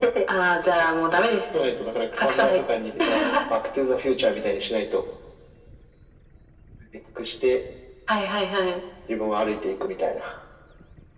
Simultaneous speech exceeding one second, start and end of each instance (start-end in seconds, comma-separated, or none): none